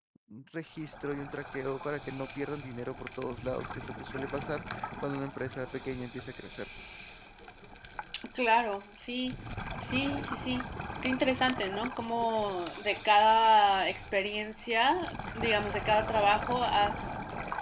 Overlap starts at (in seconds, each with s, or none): none